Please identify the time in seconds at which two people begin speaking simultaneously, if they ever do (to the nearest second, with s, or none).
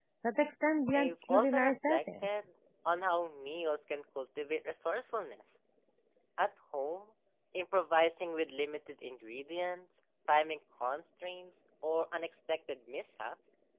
1 s